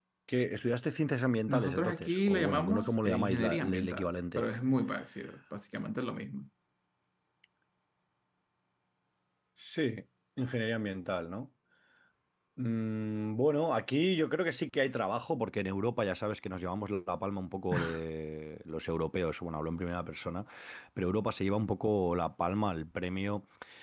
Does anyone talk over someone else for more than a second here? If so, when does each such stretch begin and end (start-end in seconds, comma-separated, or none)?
1.5-4.4